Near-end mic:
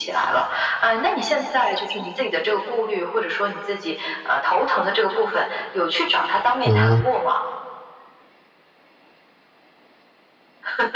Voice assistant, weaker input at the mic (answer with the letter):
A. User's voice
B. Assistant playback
B